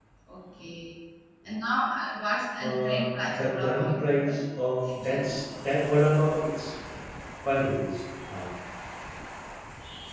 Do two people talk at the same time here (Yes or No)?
Yes